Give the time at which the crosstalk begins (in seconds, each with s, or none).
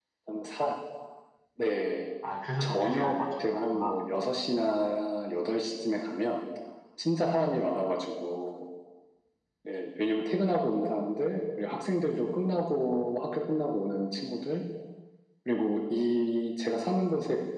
2.6 s